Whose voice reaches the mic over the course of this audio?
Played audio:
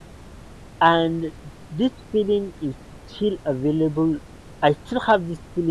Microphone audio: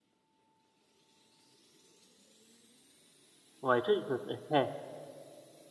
user only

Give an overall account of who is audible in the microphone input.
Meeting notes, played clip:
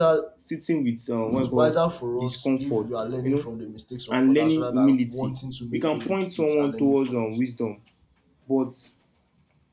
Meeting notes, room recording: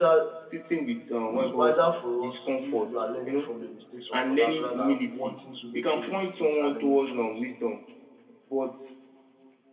echo only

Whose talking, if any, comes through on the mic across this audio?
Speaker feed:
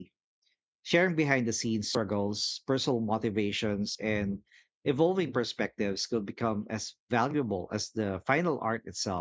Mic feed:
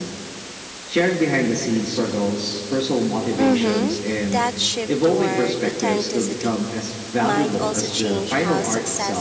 both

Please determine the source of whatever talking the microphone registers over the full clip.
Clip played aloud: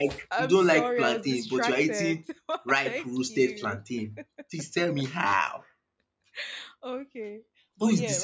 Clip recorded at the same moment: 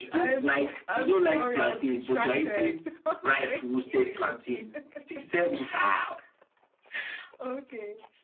echo only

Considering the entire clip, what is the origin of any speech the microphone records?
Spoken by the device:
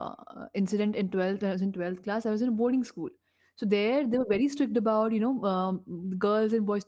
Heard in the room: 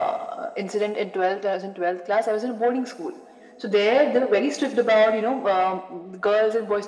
echo only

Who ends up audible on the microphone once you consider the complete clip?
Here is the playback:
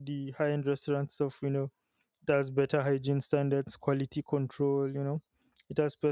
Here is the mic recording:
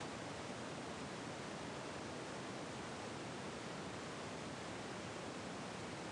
neither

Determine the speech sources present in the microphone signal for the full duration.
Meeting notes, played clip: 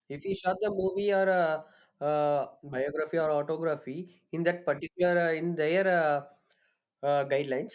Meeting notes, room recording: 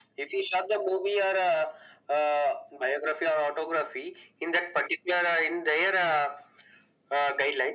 echo only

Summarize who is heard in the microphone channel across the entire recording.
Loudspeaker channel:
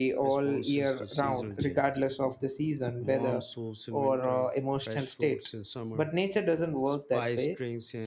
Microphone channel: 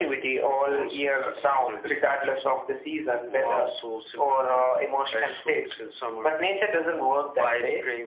echo only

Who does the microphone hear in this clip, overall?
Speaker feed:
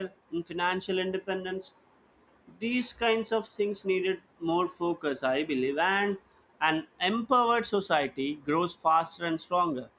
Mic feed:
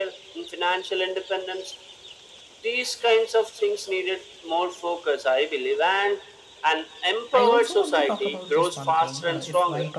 both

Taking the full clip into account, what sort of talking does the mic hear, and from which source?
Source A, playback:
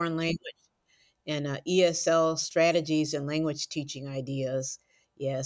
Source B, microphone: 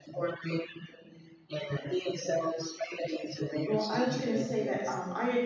both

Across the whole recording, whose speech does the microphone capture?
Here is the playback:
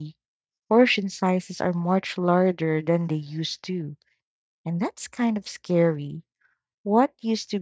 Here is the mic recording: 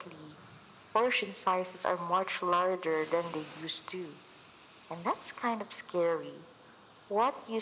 echo only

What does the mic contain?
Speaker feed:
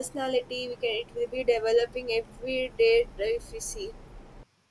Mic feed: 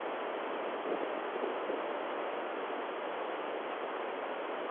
neither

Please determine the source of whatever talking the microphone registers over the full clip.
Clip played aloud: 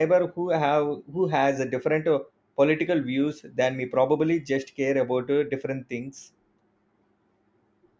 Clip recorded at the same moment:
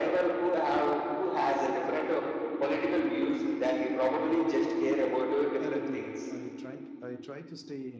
both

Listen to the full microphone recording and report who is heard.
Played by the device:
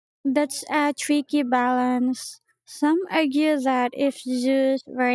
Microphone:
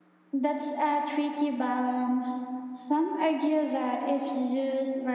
echo only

